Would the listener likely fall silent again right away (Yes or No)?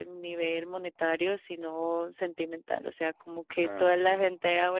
Yes